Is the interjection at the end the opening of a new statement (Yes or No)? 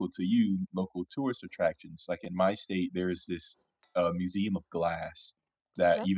No